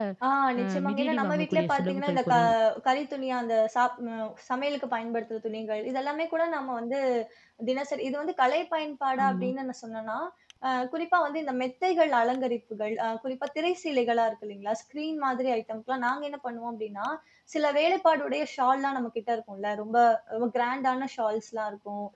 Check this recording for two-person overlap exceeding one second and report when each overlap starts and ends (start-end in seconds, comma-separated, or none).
0.6-2.4